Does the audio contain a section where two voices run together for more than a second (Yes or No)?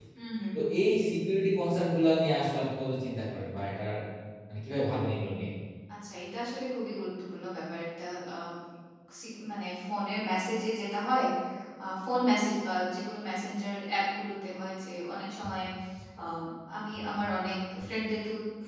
No